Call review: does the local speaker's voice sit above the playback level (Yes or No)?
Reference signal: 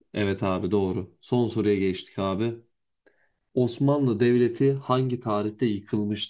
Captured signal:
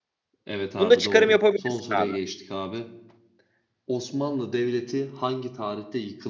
Yes